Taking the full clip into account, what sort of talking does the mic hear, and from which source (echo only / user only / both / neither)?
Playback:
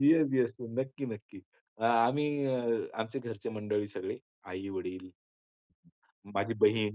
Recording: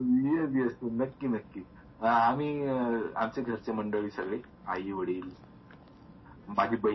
echo only